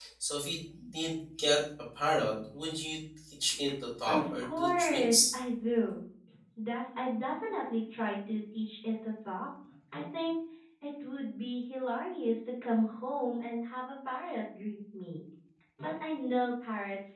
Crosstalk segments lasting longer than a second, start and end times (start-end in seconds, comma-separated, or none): 4.1-5.3